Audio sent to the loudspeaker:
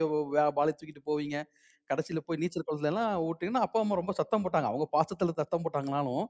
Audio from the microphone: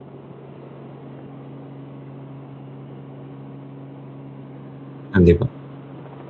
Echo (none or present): none